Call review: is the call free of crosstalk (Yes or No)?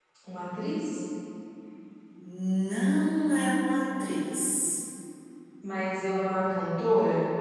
Yes